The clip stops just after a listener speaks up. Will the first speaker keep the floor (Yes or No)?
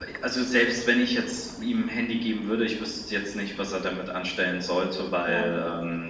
Yes